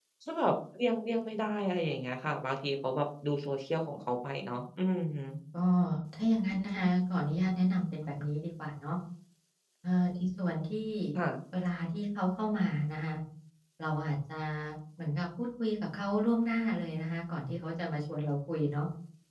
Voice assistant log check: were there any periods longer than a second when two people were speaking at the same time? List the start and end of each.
none

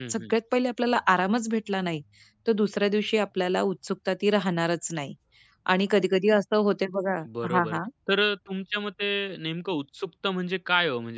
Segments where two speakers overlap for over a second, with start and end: none

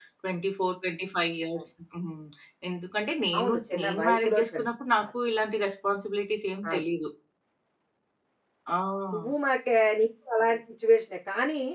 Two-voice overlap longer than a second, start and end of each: 3.4-4.7

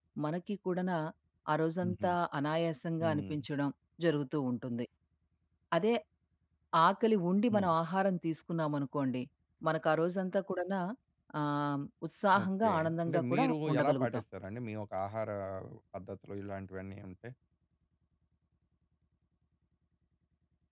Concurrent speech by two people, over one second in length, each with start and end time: 12.4-14.2

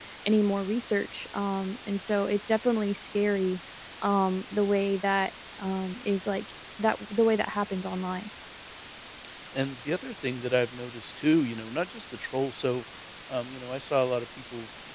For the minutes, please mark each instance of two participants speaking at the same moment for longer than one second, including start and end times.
none

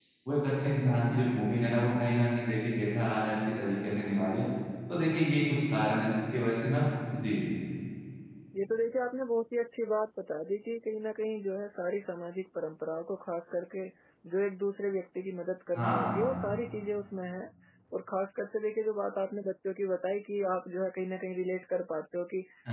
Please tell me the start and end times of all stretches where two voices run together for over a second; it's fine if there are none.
none

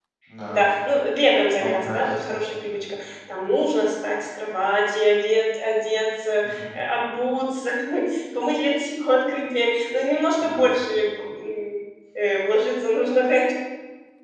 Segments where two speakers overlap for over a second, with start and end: 1.6-2.8

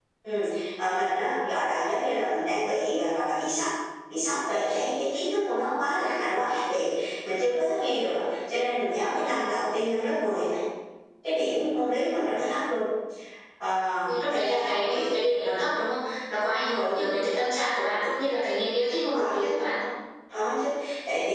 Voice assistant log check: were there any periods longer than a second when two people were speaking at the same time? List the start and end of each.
14.0-15.5

